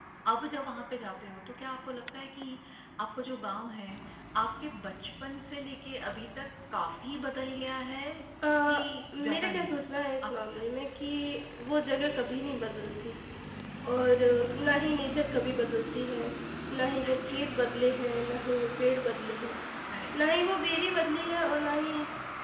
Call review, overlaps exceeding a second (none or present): present